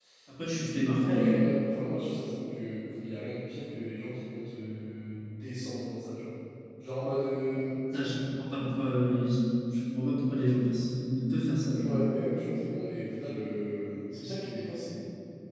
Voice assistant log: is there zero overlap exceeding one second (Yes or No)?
Yes